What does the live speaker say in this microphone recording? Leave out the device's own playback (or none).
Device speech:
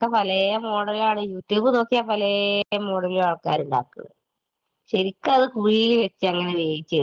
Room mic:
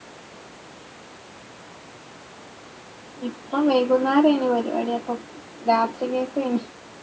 ഇപ്പം വൈകുന്നാരെനി പരിവാടി അപ്പം. രാത്രികെക്കെൻ